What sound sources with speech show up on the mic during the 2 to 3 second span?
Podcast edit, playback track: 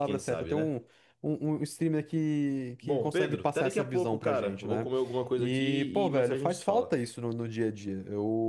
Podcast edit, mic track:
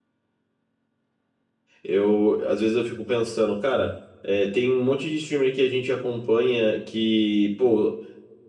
user only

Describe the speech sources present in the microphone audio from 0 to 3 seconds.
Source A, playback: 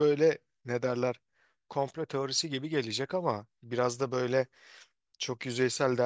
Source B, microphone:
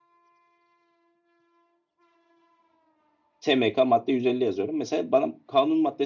neither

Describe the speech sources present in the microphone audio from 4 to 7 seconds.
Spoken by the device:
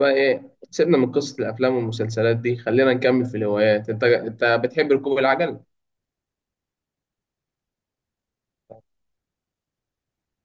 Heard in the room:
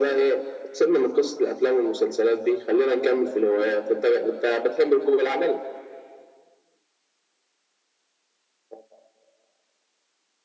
echo only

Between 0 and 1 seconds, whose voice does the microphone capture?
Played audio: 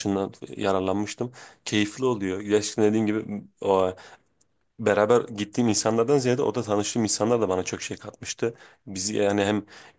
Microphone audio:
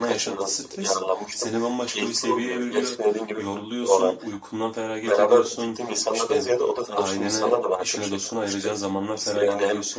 both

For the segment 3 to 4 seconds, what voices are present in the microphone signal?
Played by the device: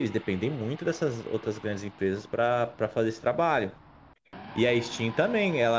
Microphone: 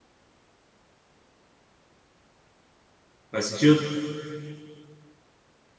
user only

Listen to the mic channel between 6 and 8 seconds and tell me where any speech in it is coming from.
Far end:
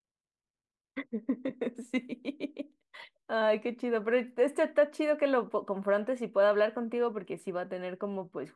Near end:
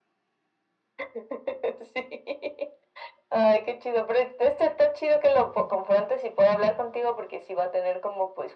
echo only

